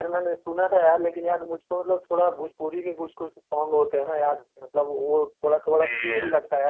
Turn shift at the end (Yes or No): No